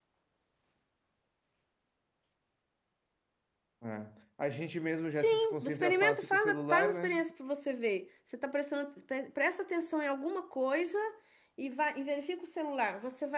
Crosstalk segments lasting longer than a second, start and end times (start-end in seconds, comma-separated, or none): 5.1-7.2